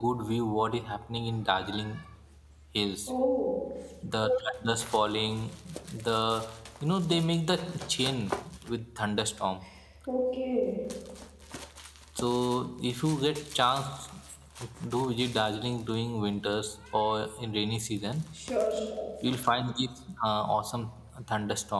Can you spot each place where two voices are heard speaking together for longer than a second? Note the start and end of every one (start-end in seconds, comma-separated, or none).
none